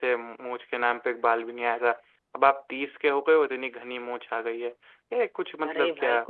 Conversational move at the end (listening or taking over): taking over